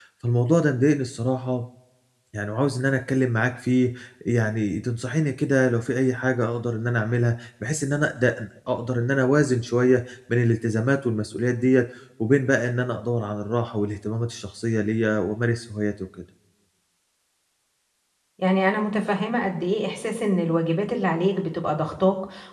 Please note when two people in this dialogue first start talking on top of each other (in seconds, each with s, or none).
none